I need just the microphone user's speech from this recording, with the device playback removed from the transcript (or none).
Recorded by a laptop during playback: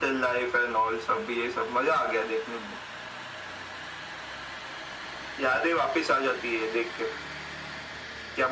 none